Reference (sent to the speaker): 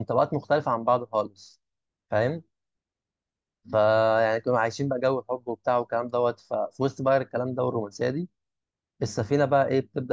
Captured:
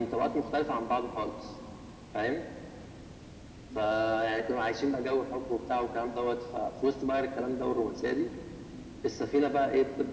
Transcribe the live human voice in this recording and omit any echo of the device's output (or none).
none